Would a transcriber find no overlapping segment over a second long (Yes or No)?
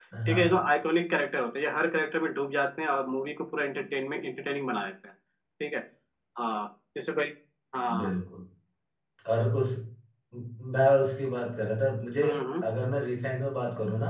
Yes